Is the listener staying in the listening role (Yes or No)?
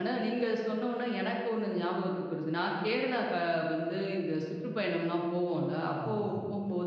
Yes